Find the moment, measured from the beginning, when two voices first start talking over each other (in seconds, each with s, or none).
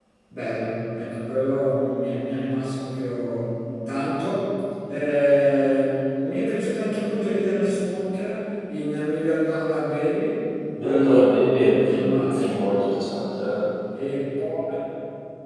10.8 s